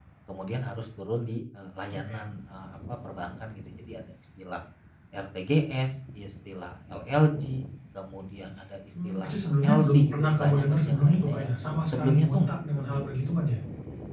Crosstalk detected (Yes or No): Yes